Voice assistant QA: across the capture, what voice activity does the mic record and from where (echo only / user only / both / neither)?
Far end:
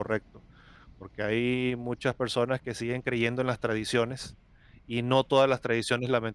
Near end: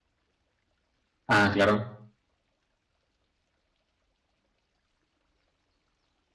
user only